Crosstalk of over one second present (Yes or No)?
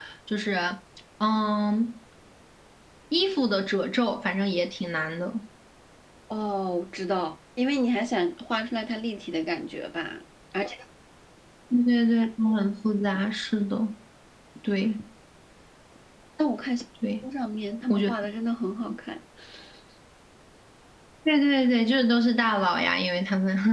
No